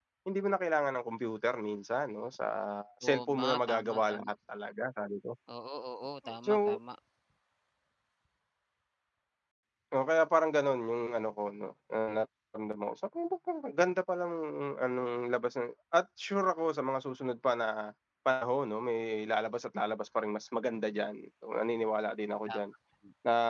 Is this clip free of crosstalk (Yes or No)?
No